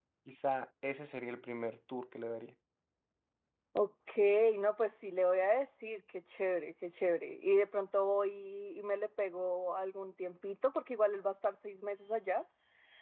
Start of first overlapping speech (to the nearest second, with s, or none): none